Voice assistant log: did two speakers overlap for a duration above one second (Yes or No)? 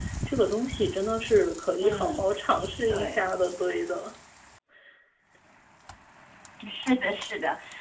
No